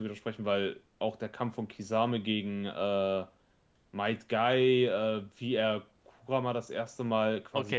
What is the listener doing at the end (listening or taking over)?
taking over